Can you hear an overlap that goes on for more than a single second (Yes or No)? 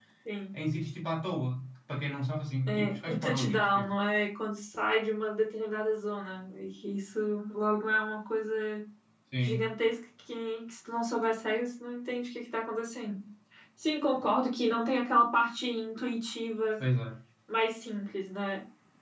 Yes